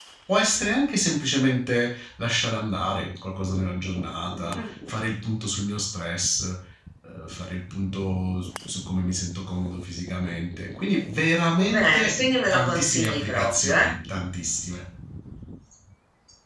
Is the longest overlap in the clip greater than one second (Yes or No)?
Yes